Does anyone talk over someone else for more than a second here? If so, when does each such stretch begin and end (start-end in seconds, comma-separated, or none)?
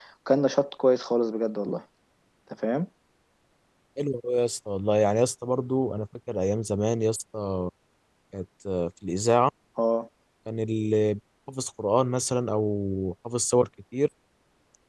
none